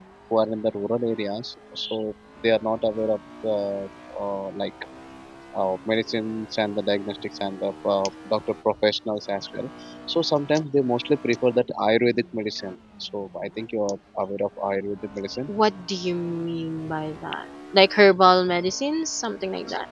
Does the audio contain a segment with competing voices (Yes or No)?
No